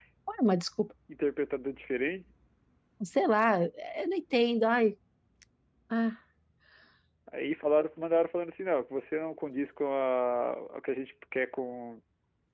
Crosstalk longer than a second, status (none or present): none